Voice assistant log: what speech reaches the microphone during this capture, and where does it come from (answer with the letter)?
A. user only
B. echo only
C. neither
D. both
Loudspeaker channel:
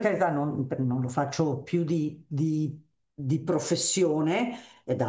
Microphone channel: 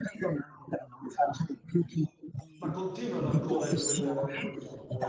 D